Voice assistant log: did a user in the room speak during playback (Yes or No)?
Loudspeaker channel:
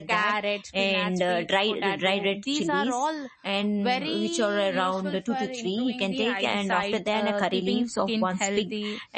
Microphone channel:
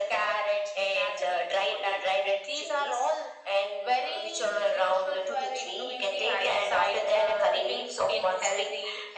No